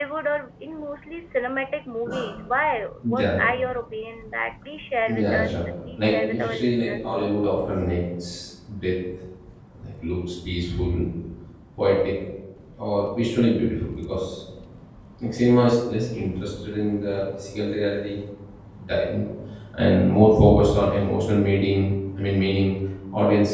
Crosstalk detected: Yes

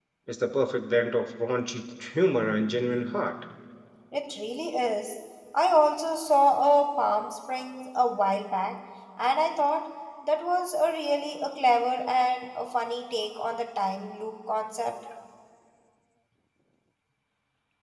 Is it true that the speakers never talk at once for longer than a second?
Yes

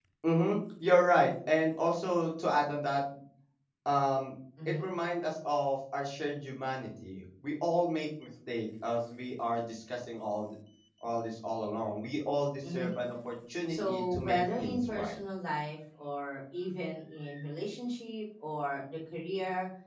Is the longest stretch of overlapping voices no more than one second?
No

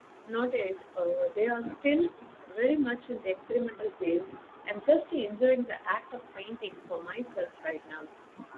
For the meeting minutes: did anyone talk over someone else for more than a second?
No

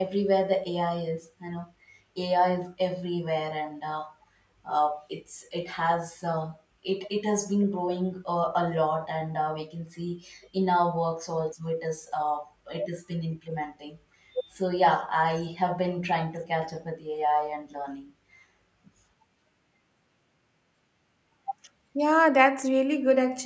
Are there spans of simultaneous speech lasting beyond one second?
No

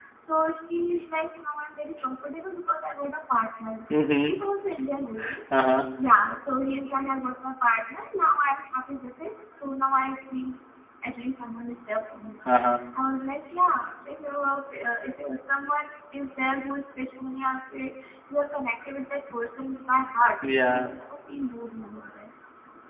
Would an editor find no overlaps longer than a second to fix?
Yes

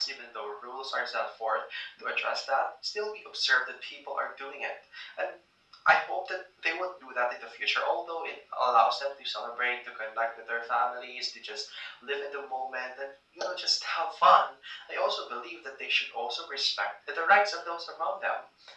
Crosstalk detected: No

